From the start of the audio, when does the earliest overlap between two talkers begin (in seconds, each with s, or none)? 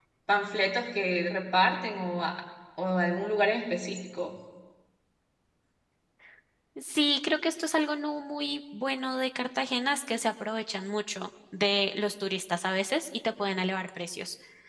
none